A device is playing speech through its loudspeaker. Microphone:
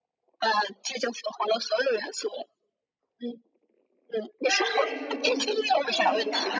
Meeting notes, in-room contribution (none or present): present